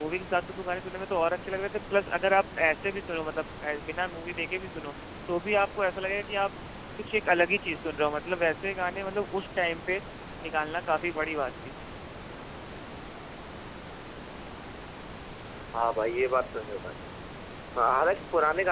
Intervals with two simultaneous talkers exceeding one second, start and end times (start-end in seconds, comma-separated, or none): none